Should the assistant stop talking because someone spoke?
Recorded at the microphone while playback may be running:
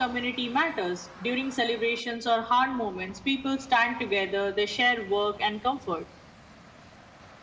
No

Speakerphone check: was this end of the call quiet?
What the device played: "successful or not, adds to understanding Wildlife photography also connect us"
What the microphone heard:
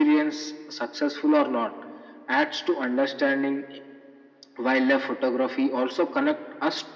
Yes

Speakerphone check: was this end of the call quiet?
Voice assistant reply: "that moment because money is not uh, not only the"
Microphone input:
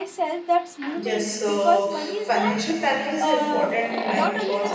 No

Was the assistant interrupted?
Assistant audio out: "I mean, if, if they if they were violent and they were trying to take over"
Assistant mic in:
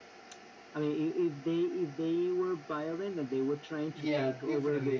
Yes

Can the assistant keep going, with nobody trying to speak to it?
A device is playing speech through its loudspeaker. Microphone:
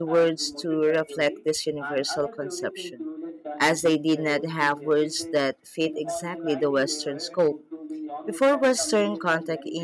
No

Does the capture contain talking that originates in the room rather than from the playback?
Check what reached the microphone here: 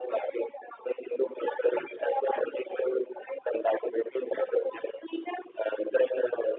No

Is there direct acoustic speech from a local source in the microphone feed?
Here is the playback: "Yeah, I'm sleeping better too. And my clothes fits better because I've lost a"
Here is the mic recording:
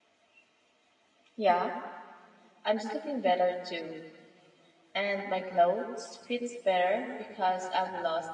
No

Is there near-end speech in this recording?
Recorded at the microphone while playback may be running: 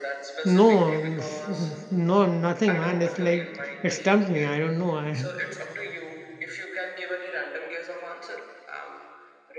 Yes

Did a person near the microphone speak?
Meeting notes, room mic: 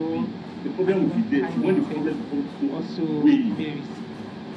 Yes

